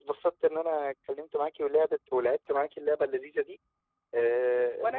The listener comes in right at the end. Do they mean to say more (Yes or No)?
No